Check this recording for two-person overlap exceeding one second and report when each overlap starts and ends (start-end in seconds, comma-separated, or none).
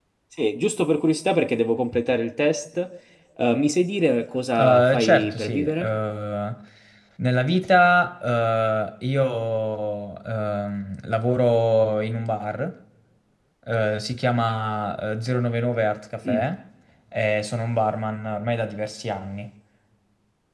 4.6-5.9